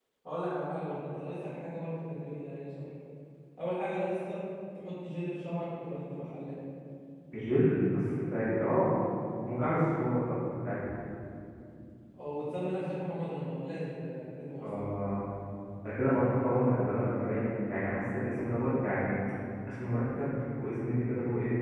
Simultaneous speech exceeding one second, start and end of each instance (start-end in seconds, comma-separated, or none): none